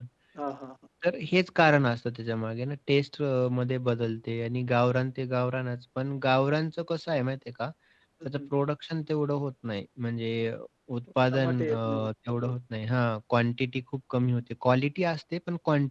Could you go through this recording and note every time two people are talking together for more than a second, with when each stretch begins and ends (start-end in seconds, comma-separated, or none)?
11.3-12.5